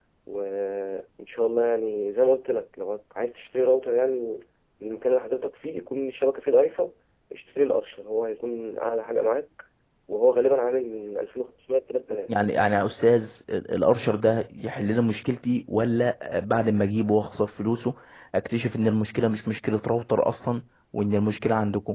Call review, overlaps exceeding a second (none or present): none